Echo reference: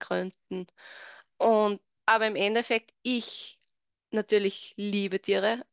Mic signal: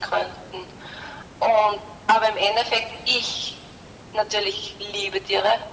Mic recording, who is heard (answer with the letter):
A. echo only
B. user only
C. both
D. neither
A